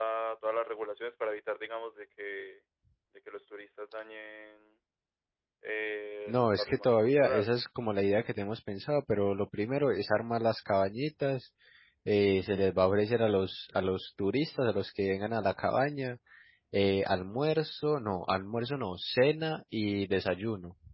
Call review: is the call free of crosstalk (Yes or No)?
No